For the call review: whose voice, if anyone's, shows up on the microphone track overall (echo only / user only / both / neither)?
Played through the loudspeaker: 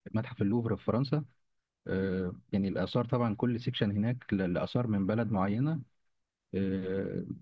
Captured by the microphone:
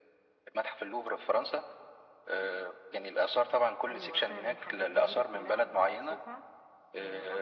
both